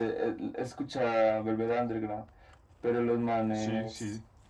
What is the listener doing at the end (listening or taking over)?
listening